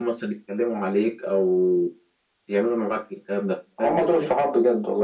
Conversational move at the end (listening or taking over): taking over